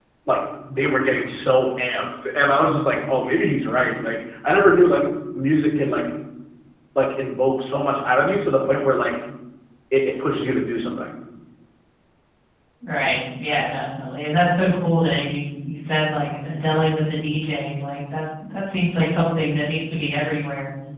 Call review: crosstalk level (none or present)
none